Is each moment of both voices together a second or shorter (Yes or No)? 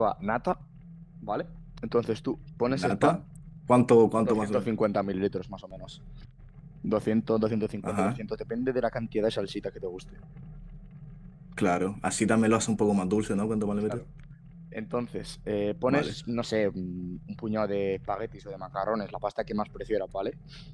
Yes